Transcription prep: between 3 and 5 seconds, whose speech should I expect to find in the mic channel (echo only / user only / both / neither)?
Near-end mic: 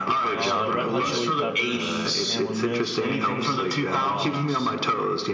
both